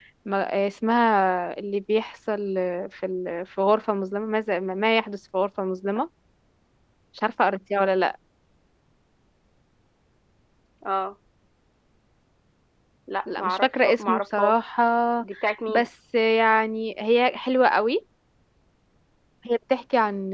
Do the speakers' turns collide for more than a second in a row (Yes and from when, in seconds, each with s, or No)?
Yes, from 13.3 s